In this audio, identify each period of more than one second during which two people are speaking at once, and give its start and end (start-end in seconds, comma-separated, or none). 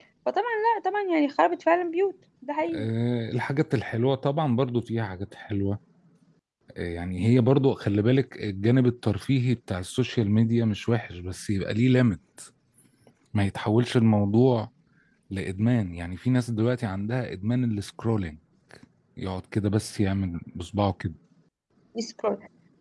none